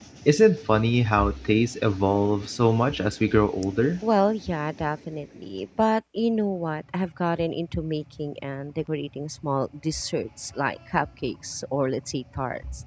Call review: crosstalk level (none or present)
none